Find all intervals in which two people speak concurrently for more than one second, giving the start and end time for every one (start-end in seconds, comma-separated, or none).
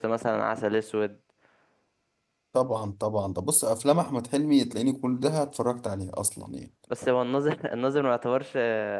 none